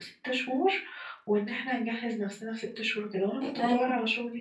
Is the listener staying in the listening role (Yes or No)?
Yes